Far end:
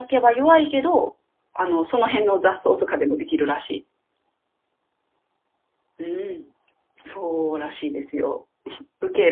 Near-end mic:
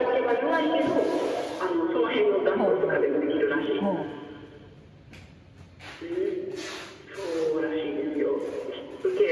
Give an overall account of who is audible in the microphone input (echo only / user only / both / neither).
both